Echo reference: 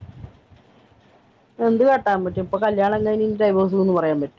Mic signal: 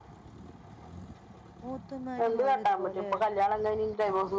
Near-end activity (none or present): present